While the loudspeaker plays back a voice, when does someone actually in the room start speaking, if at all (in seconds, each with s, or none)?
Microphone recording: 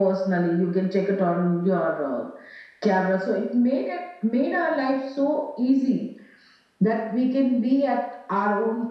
none